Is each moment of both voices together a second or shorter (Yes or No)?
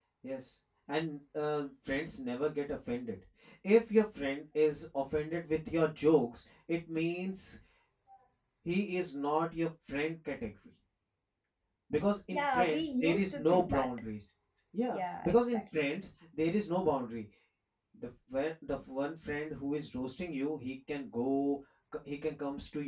No